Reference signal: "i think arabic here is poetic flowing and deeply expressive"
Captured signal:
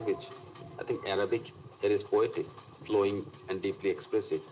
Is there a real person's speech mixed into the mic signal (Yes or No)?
No